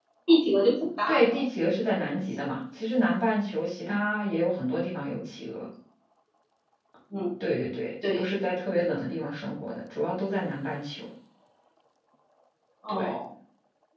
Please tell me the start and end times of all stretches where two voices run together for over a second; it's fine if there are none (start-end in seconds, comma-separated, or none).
none